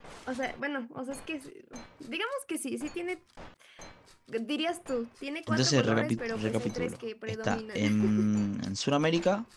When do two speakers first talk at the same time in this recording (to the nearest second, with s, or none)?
5 s